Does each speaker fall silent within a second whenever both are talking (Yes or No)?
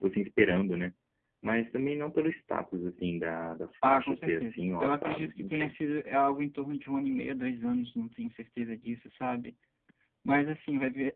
No